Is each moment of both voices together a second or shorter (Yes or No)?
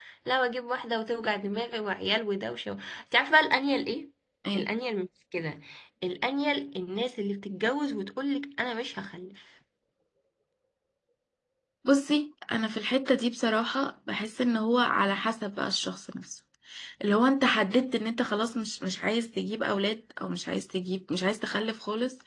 Yes